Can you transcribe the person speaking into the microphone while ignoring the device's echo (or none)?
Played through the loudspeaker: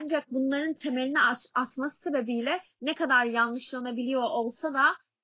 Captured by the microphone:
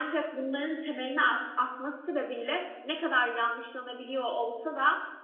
none